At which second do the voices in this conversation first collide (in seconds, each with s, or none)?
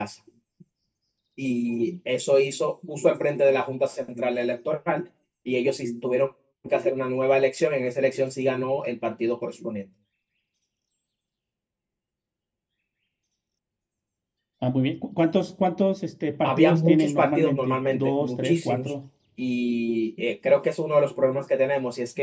16.4 s